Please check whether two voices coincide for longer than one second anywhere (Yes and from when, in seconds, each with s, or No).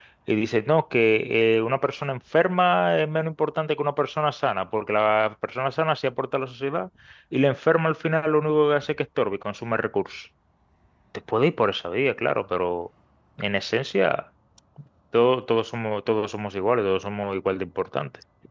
No